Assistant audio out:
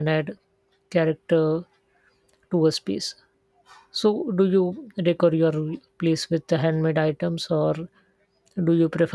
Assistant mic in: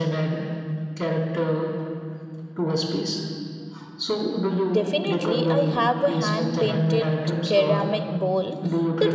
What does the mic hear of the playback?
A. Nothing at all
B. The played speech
B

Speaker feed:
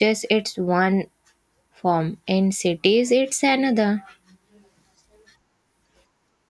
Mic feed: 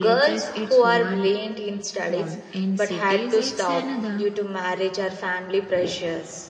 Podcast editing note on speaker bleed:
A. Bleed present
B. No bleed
A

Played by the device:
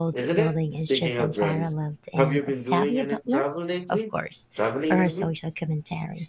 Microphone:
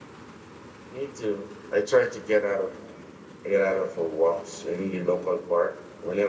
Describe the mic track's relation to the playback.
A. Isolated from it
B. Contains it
A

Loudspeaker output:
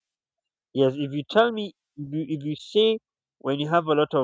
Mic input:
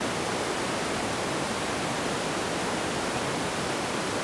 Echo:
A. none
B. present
A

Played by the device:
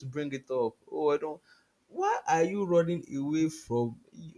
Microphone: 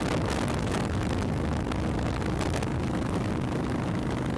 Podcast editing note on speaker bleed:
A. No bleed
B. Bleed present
A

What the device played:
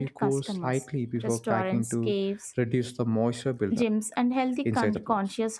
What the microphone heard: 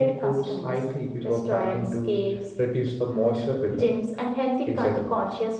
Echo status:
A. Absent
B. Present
B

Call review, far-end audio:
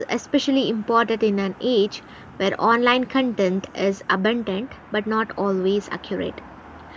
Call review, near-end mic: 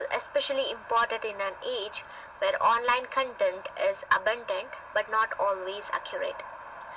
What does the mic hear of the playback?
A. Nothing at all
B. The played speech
B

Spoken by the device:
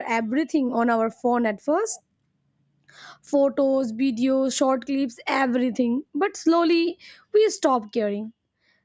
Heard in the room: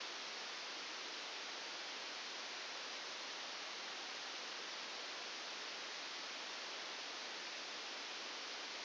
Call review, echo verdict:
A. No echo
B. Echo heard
A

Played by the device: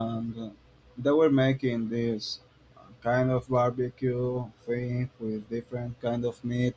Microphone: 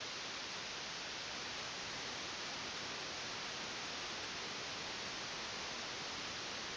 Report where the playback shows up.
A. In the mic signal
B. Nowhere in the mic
B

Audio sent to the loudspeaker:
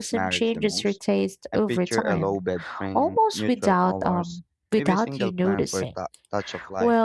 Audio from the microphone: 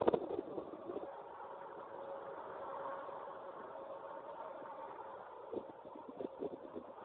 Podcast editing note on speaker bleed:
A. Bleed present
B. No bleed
B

